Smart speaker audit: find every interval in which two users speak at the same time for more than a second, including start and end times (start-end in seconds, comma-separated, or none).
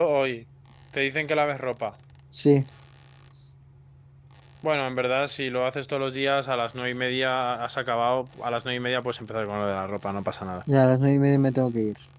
none